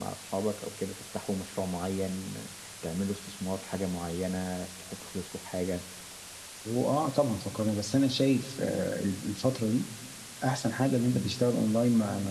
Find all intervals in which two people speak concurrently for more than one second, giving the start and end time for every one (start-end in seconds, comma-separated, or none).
none